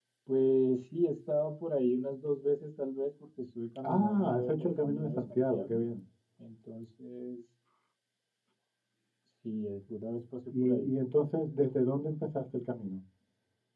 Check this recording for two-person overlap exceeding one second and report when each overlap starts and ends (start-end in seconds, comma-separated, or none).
3.8-5.8